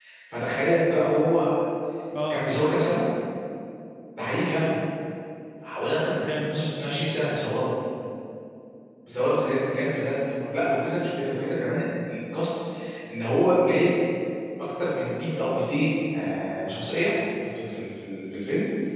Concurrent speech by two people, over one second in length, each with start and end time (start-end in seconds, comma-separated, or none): none